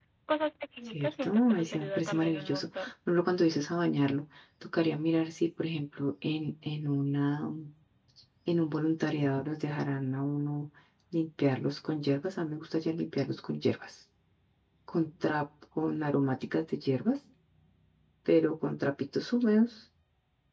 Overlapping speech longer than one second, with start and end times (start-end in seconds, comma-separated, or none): 0.9-2.9